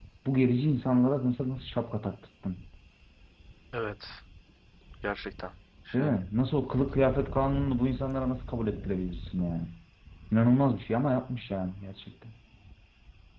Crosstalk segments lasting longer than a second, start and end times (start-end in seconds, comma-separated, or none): none